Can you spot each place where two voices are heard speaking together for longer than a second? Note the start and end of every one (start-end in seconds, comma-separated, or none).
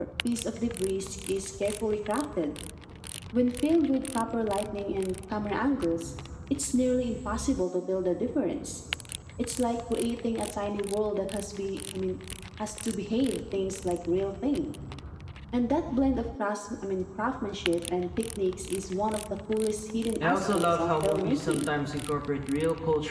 20.2-21.7